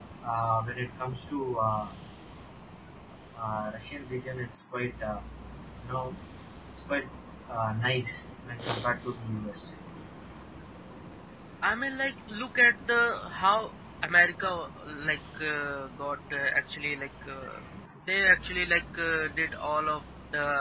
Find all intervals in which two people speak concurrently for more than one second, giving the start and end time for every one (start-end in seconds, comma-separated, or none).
none